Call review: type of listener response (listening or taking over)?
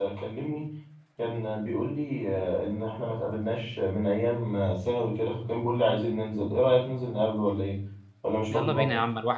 taking over